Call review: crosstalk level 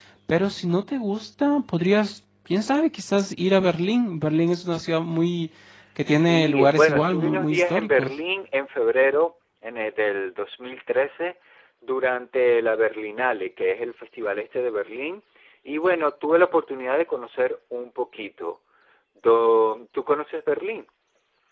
present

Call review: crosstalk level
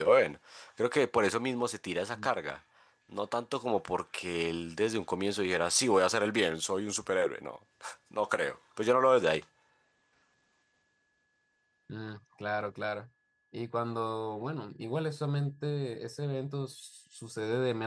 none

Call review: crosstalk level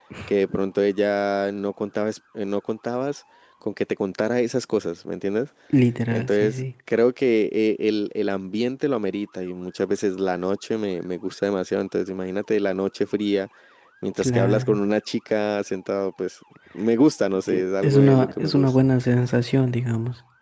present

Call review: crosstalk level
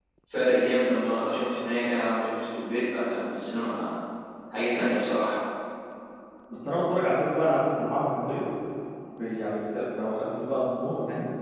none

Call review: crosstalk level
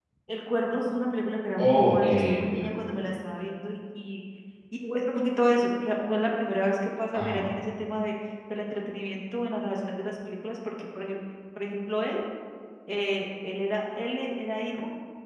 present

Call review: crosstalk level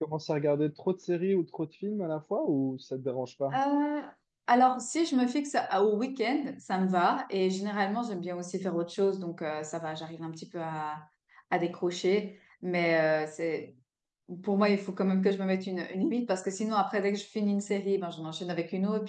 none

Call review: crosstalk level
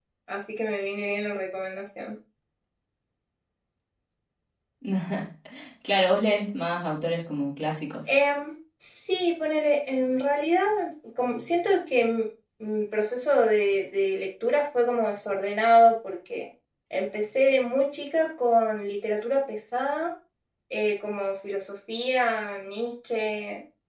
none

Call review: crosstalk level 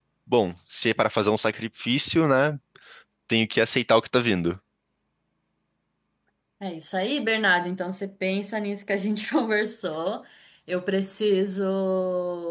none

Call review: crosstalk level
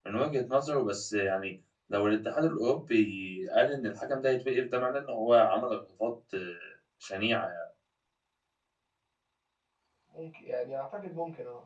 none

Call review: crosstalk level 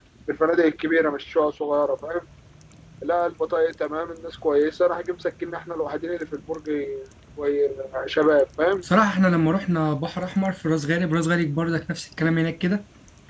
none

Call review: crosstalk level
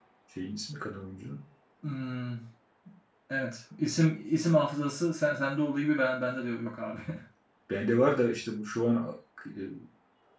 none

